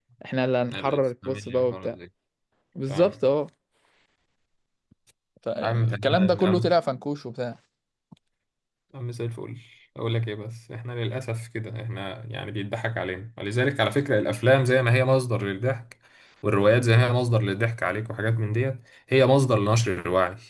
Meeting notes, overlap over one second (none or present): present